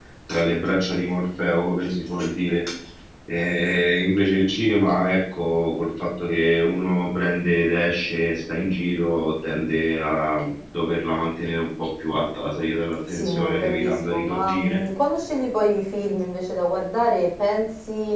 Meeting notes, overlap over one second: present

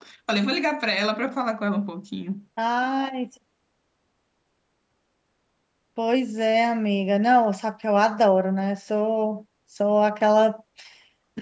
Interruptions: none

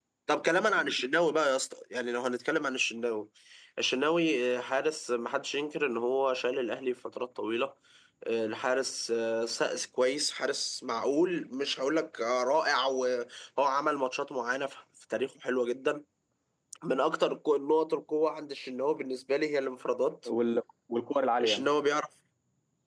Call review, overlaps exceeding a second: none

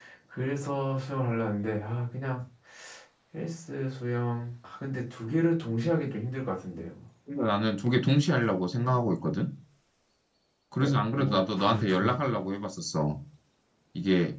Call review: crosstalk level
present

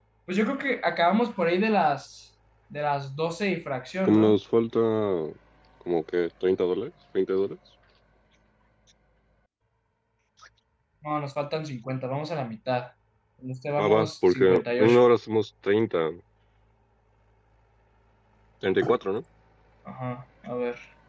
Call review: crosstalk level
present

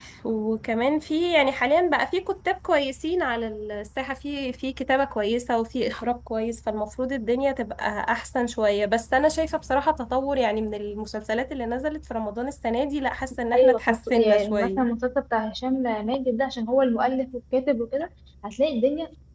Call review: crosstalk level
present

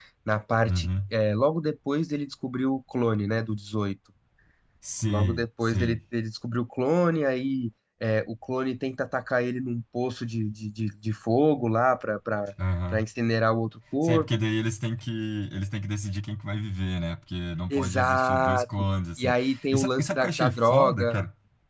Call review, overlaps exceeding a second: present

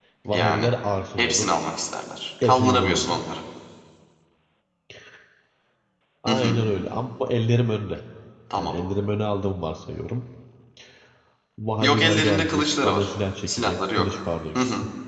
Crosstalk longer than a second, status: present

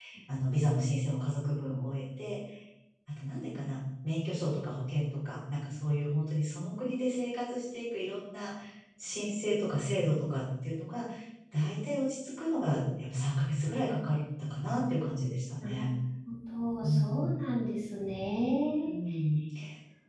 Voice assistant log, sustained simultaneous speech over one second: none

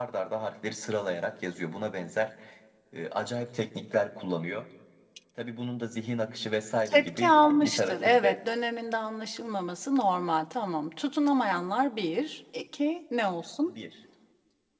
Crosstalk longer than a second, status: present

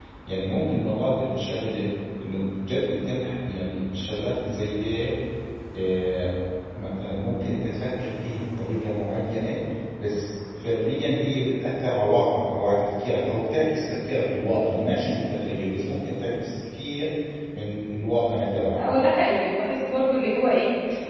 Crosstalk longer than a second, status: none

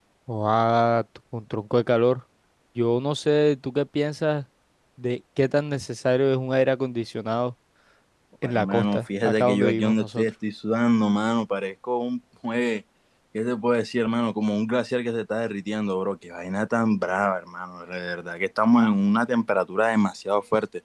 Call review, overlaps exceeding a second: present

